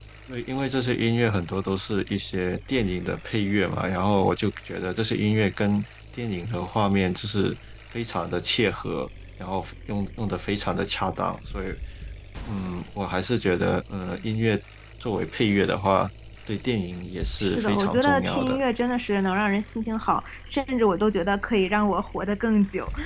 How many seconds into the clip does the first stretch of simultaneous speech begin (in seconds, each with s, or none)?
17.4 s